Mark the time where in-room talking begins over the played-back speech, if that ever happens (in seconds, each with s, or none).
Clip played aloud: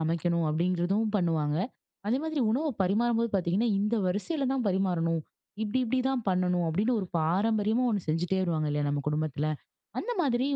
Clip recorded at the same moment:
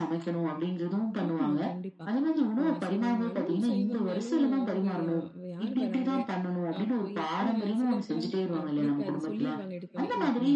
1.2 s